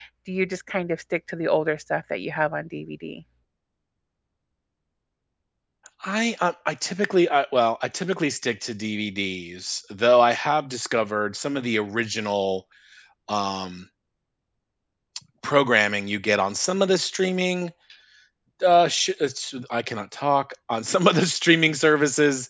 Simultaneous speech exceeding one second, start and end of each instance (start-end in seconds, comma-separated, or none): none